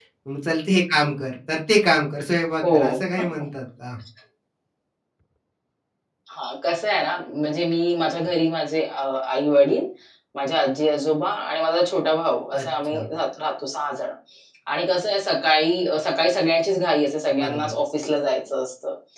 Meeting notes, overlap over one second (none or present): none